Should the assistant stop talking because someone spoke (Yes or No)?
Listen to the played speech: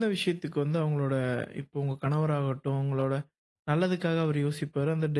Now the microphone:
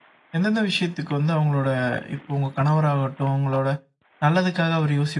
No